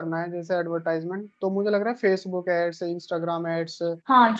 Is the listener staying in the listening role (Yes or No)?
No